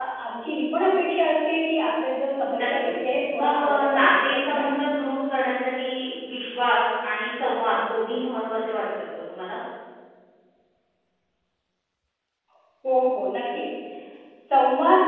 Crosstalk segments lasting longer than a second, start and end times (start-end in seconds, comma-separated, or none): 3.4-4.8